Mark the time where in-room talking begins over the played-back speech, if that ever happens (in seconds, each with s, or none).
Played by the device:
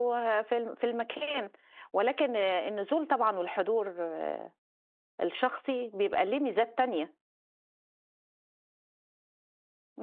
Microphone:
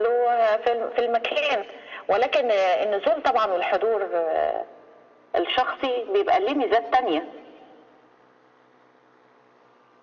none